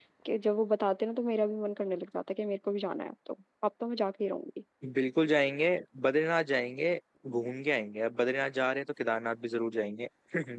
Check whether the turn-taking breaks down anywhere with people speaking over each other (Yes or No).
No